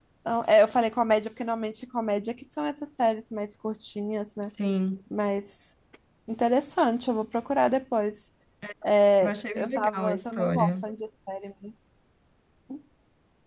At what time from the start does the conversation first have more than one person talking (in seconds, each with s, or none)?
9.2 s